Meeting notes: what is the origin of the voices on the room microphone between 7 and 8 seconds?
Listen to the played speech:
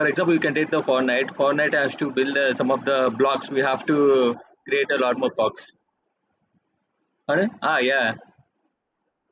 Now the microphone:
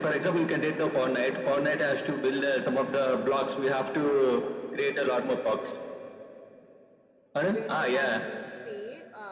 both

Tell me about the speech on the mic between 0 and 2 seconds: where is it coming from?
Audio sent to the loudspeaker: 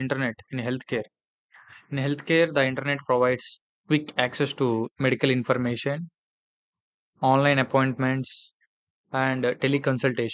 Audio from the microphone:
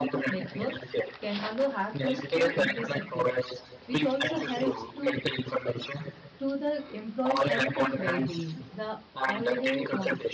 both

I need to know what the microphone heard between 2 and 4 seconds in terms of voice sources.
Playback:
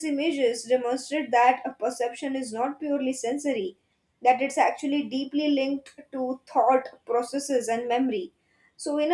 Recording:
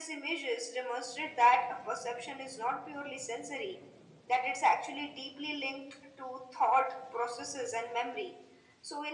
echo only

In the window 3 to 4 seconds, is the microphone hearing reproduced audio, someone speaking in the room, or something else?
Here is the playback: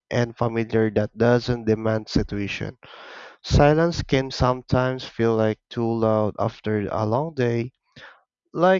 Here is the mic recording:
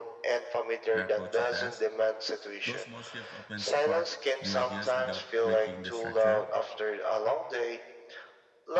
both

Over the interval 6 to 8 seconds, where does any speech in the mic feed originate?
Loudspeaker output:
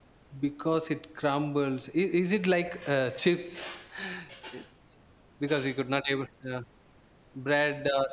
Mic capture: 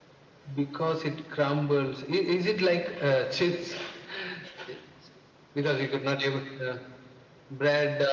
echo only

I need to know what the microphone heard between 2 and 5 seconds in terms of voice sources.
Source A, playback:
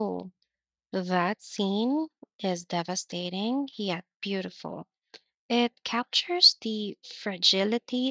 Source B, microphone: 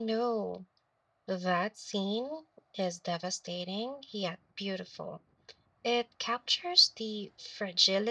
echo only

